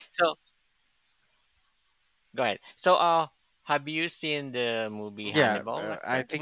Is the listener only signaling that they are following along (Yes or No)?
No